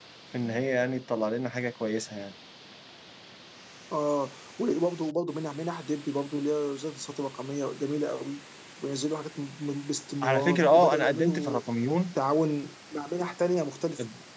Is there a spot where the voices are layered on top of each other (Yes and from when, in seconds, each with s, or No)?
Yes, from 10.2 s